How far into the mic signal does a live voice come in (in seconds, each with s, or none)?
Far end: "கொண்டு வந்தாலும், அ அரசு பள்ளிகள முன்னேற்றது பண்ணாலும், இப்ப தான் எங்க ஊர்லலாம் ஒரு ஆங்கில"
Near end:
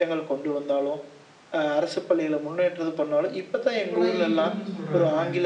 3.8 s